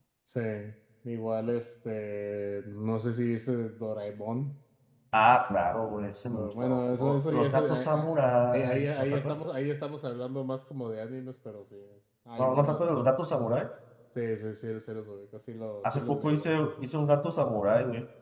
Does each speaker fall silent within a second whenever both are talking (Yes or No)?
No